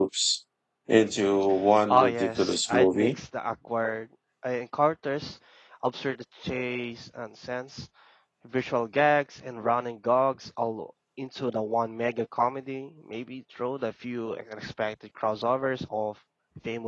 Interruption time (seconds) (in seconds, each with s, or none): 1.9 s